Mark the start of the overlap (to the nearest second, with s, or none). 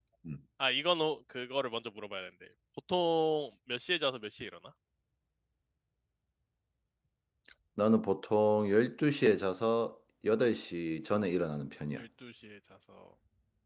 none